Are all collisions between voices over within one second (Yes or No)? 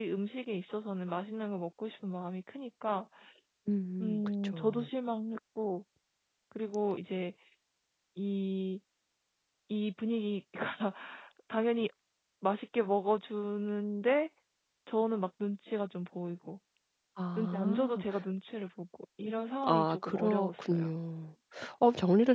No